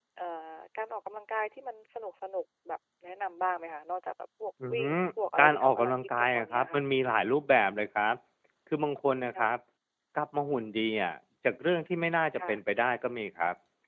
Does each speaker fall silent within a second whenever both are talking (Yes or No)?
No